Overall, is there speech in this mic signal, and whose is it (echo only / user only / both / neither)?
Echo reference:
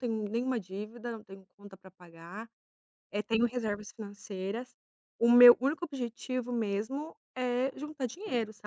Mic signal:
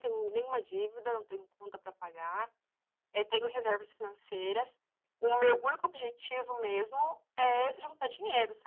echo only